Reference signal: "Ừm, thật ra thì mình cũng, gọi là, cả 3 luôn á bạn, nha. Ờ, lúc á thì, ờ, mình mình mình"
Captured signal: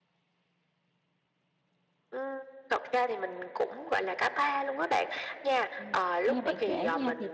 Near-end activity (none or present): present